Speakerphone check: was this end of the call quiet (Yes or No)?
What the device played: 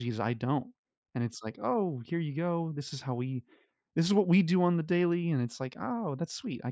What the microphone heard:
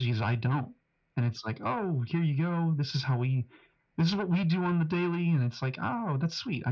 Yes